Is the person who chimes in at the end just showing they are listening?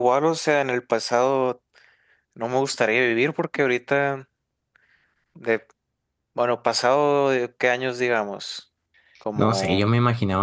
No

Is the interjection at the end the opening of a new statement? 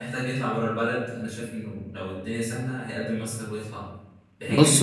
No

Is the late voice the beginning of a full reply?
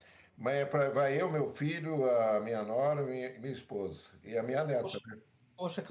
Yes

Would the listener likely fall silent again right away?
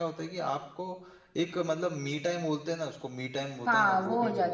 No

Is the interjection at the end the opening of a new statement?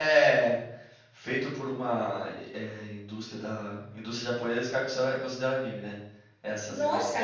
Yes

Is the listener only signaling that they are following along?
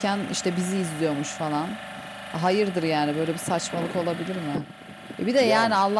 Yes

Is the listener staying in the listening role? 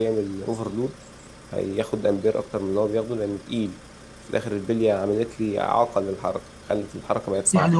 No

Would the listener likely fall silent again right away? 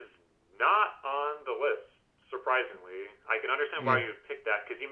Yes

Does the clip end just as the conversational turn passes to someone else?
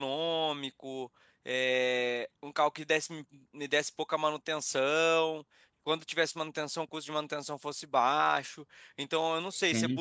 No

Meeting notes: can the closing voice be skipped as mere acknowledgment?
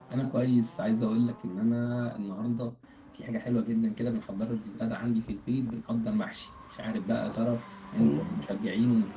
Yes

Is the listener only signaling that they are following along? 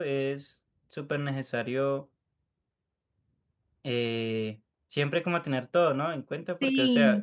Yes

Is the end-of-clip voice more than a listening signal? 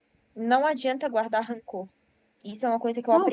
Yes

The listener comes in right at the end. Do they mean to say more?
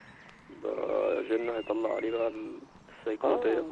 Yes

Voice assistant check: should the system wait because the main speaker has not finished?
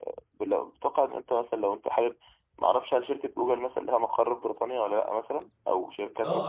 No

